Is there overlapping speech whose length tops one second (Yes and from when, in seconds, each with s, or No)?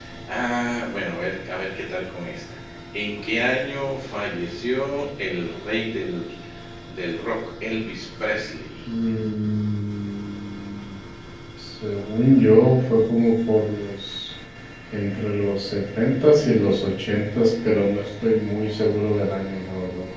No